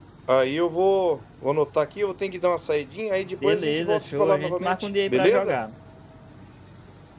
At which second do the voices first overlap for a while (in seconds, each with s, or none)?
3.4 s